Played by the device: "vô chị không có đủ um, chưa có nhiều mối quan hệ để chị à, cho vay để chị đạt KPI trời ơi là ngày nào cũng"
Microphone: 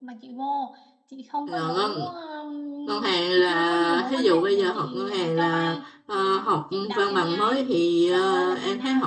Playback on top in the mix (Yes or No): No